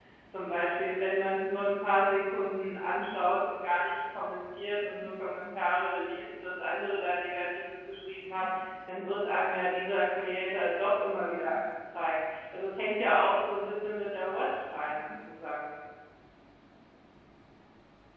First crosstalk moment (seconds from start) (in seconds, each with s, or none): none